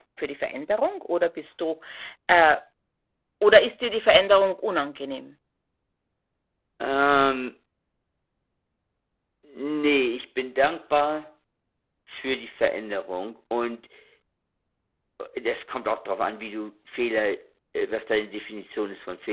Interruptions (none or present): none